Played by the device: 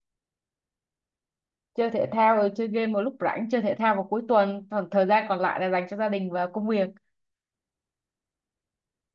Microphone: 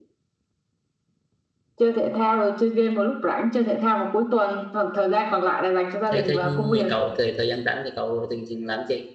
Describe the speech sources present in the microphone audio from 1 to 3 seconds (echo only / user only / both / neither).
echo only